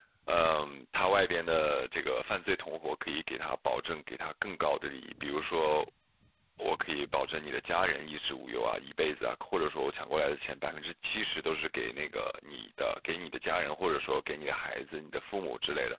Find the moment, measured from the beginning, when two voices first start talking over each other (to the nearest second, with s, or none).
none